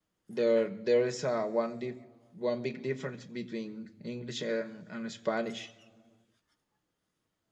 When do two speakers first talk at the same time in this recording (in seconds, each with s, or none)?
none